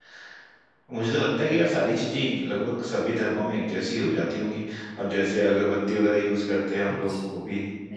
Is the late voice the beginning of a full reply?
Yes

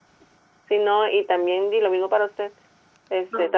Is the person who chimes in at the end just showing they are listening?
Yes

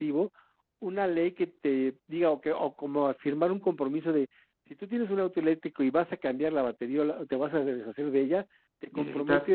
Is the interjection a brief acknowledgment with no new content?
Yes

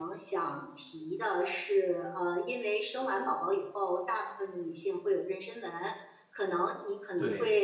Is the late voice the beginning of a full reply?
No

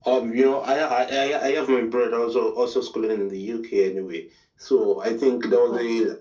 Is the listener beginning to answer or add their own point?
No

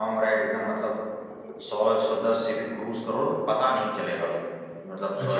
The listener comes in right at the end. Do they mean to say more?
Yes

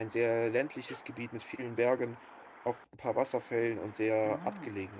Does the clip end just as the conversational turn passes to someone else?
Yes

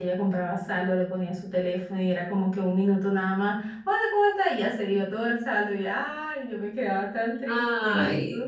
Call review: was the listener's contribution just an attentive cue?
Yes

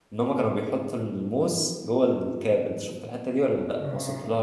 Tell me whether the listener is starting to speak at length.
Yes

